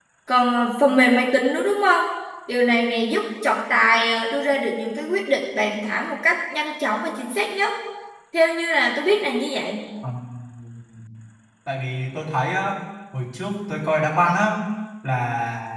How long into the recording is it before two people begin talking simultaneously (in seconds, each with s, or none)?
none